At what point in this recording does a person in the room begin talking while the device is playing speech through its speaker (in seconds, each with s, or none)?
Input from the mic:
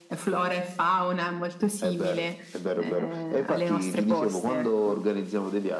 none